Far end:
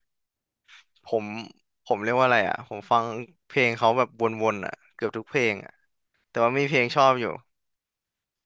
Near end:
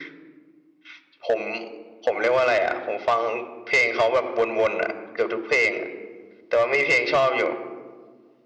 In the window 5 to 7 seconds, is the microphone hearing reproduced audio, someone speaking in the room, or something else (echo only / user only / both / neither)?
echo only